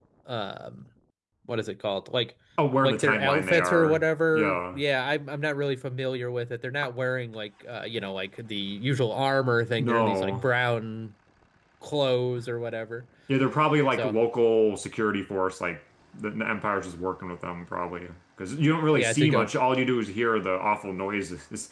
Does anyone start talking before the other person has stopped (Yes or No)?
Yes